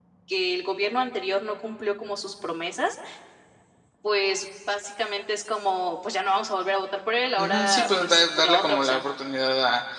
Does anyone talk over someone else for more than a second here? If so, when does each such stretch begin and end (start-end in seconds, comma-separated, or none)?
7.4-9.0